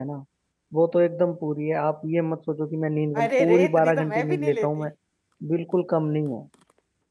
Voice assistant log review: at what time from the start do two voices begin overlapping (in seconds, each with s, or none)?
3.1 s